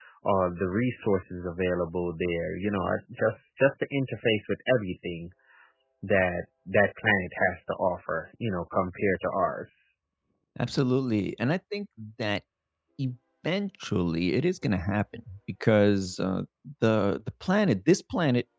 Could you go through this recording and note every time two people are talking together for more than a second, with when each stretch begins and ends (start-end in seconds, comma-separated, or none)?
none